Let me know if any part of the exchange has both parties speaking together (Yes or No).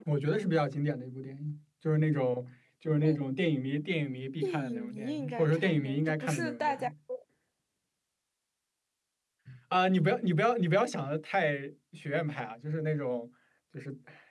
Yes